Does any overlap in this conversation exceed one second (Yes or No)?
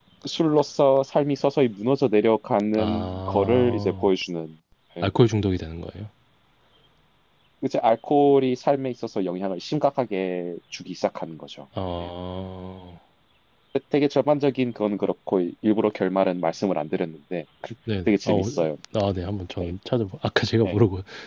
Yes